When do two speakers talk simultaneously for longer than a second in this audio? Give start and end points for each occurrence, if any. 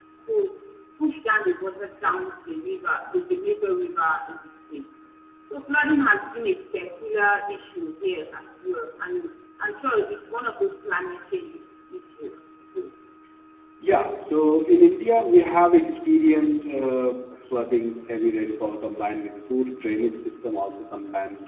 none

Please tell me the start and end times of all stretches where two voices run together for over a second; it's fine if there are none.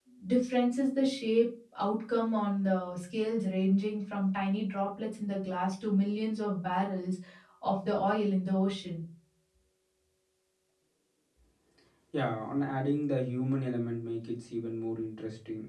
none

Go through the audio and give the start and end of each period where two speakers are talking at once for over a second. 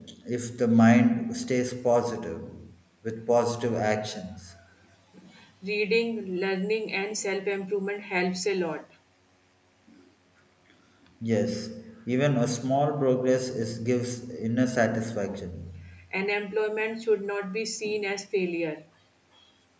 none

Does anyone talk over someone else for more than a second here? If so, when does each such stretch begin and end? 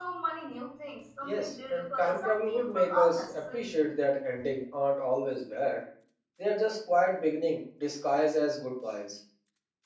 1.2-3.7

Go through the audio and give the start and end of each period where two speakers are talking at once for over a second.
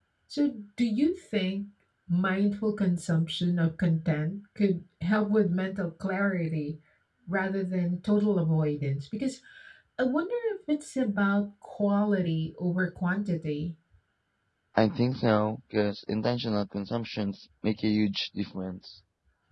none

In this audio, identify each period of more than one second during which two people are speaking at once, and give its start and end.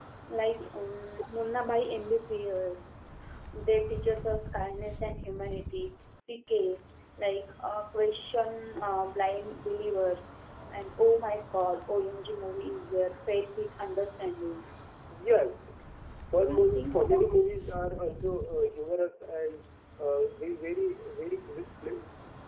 16.3-18.0

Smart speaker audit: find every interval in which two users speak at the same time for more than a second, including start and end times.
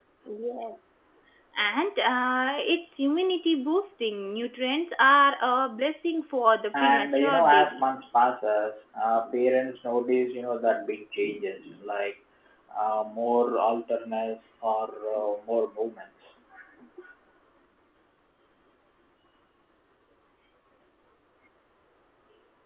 6.8-8.0

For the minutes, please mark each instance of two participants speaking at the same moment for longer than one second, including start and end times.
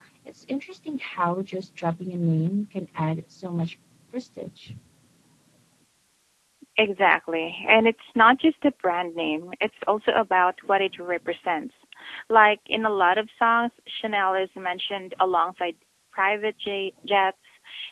none

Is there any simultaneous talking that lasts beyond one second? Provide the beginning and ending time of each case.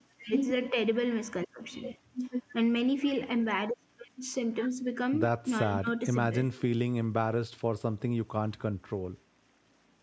5.1-6.4

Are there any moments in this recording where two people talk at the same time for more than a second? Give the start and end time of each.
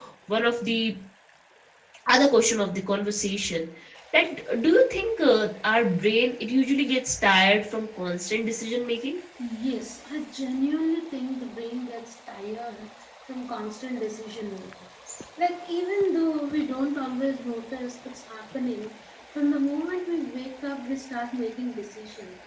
none

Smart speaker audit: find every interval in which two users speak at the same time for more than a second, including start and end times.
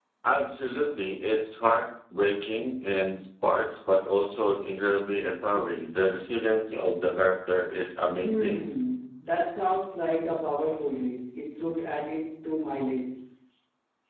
none

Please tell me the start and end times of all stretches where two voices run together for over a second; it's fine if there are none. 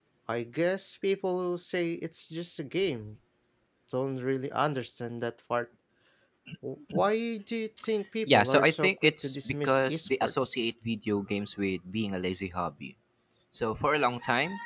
8.3-10.6

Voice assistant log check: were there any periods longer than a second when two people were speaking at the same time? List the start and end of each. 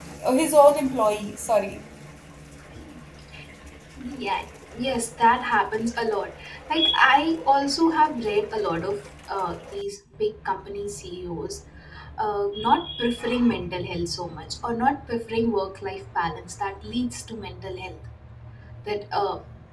none

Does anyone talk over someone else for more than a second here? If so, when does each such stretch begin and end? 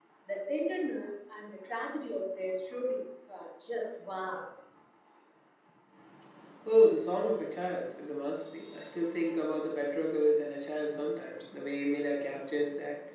none

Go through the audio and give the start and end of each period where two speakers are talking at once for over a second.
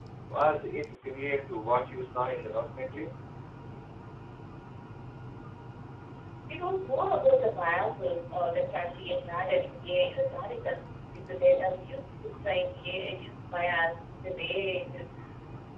none

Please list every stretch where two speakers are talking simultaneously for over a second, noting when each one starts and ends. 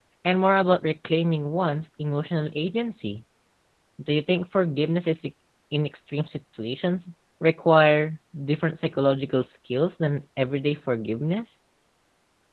none

